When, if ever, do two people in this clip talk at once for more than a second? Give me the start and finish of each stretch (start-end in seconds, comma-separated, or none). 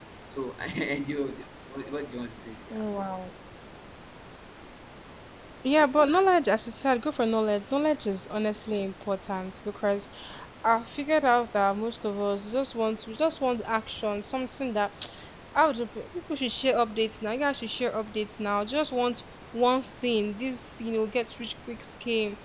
none